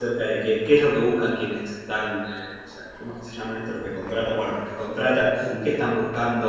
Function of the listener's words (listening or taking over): listening